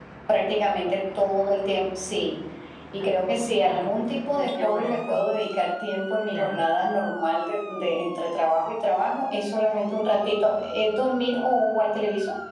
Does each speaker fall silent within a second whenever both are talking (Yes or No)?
No